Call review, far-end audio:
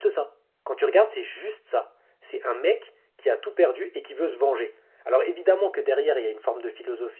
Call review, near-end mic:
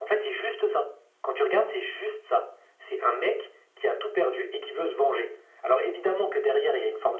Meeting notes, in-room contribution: none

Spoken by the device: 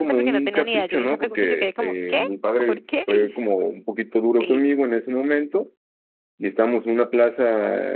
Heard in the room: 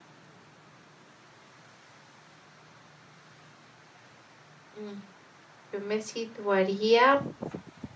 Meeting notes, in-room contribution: present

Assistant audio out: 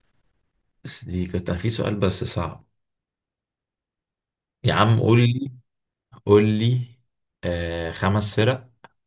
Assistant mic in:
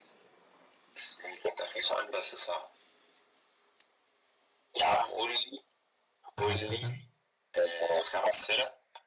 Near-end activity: present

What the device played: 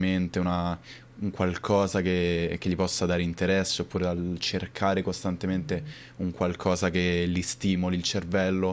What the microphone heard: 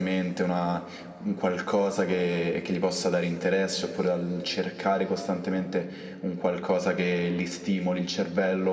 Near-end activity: none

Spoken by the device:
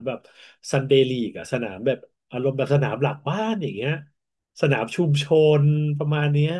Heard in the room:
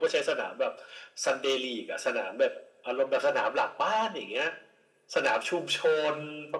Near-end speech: none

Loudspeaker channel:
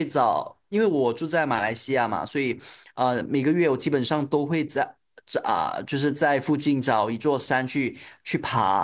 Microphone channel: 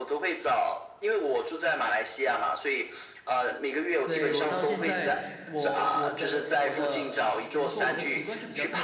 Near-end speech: present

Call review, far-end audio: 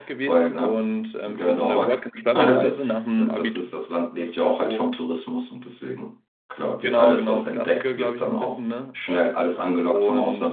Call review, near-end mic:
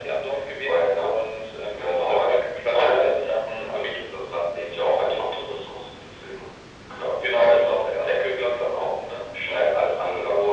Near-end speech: none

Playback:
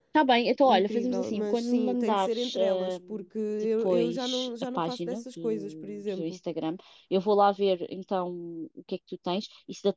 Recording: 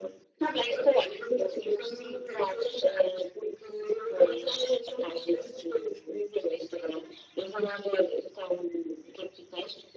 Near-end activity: none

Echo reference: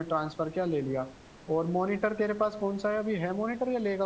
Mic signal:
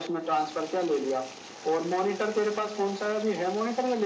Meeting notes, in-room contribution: none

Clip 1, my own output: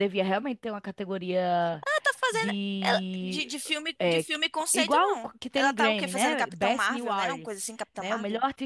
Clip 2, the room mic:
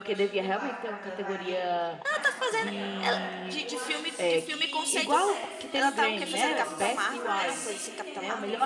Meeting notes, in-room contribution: present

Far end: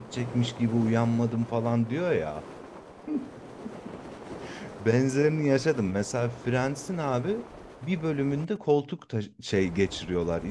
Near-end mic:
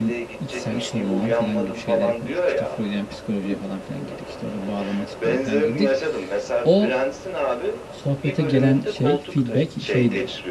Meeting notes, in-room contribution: present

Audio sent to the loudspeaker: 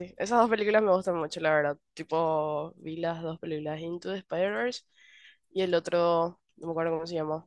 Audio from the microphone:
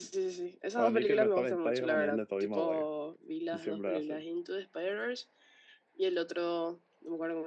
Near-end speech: present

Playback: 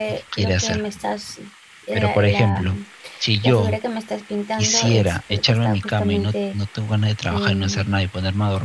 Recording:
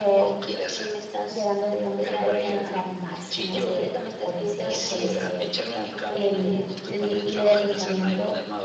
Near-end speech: present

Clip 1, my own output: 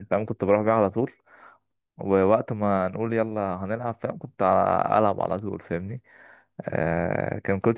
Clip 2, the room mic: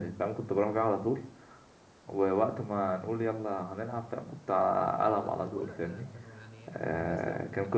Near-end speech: present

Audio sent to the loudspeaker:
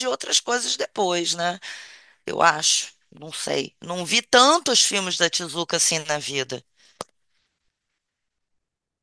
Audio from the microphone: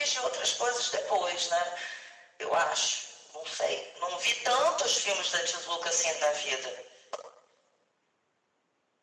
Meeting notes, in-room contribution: none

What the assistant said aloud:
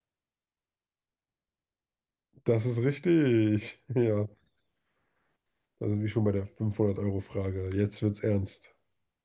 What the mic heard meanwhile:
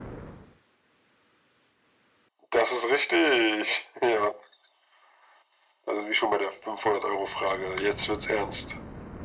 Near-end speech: none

